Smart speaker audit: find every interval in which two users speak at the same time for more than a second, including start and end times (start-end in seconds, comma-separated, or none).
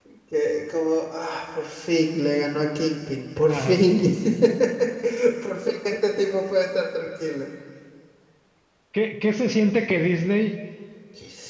none